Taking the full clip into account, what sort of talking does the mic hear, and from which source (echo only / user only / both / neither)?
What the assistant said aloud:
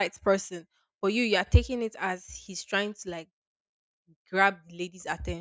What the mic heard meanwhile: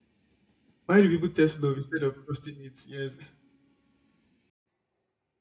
user only